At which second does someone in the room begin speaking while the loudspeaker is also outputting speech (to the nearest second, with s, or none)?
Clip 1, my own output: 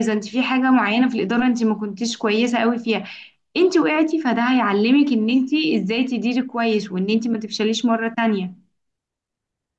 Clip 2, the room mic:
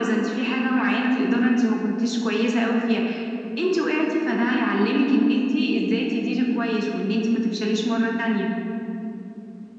none